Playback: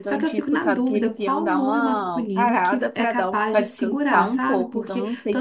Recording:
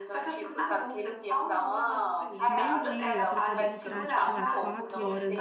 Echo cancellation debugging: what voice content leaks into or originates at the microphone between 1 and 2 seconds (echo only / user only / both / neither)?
echo only